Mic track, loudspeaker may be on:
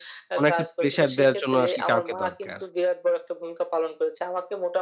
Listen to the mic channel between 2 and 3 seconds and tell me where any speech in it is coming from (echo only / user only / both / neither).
both